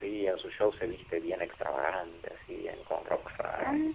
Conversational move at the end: taking over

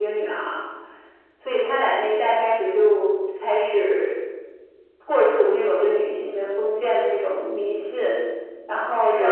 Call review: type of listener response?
taking over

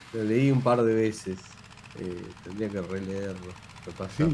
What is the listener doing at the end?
taking over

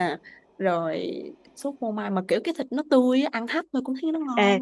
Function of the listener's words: taking over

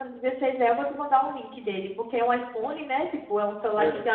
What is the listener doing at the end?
listening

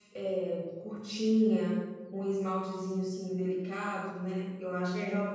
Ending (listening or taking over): listening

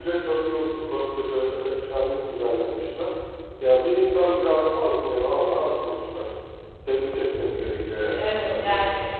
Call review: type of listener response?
taking over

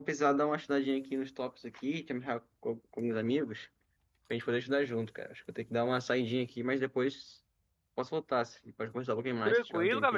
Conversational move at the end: taking over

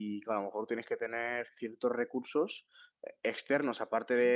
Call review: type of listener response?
listening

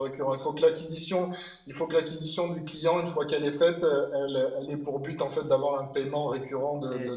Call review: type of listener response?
taking over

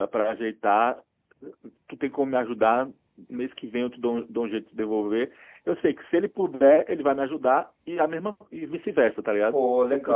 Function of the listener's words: taking over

